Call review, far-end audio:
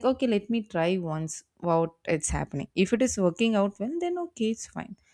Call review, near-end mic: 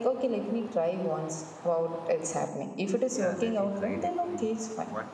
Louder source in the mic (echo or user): echo